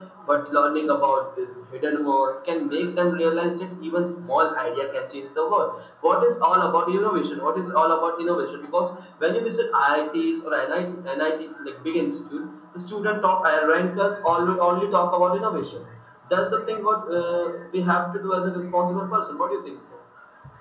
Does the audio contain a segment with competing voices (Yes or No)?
No